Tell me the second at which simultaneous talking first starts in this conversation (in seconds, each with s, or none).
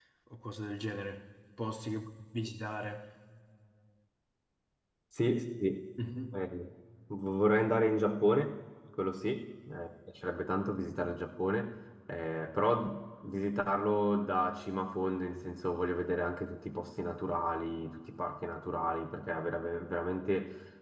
none